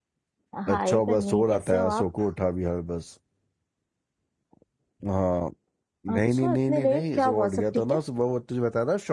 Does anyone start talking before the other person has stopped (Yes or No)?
Yes